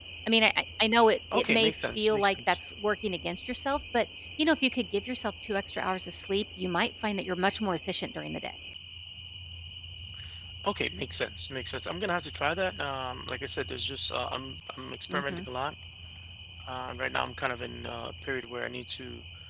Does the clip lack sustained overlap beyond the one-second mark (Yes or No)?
No